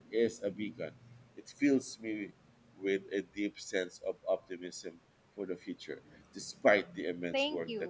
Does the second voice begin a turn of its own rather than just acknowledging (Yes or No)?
Yes